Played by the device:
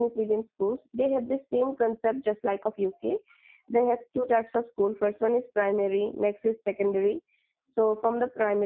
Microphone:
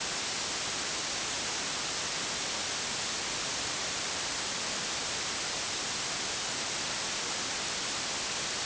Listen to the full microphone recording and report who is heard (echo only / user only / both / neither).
neither